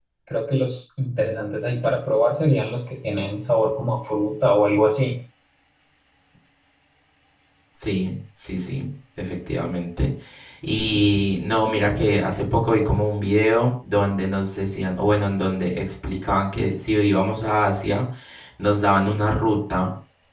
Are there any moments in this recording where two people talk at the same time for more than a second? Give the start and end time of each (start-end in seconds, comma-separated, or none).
none